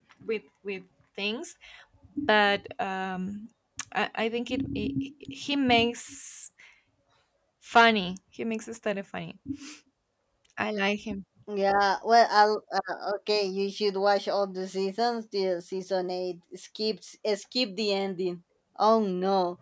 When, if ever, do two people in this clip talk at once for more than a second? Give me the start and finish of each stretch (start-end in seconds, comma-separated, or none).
none